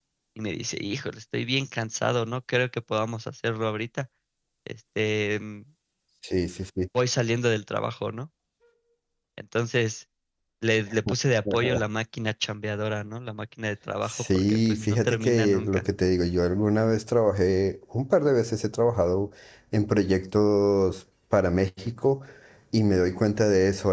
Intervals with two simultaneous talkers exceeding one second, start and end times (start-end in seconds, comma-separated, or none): 14.1-15.8